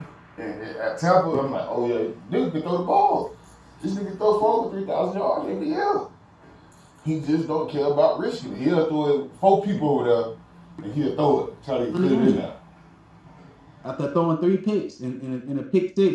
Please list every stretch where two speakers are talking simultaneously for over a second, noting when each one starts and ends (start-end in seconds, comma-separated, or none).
none